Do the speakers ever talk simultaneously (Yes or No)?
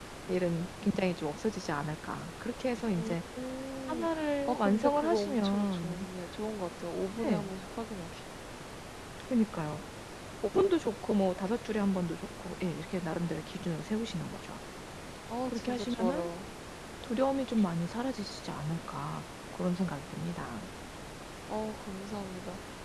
Yes